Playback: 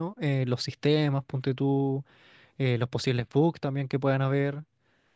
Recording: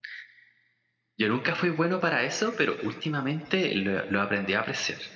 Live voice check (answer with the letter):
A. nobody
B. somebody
B